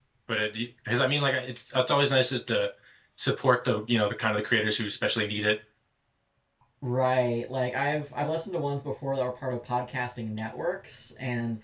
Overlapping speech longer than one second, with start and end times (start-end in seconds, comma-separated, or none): none